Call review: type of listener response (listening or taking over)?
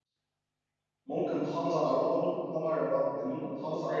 listening